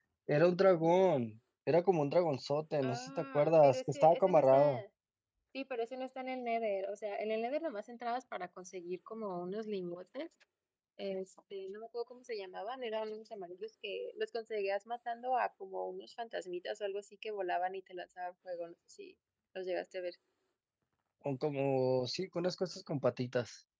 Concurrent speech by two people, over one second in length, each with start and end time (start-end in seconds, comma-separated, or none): 2.8-4.8